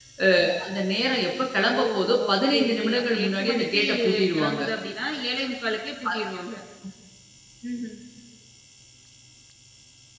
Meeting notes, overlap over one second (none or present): present